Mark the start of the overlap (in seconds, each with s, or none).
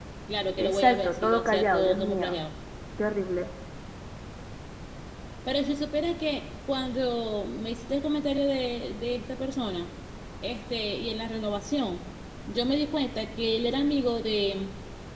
0.6 s